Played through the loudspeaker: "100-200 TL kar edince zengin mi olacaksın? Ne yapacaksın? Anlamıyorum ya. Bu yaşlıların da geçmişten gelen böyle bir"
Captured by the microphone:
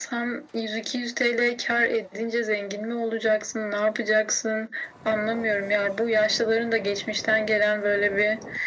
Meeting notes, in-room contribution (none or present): none